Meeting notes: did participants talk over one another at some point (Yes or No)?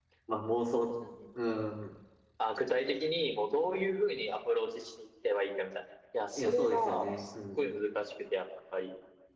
Yes